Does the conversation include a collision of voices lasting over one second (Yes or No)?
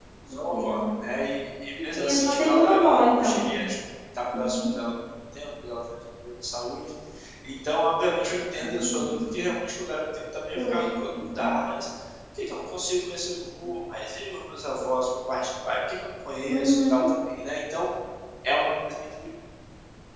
Yes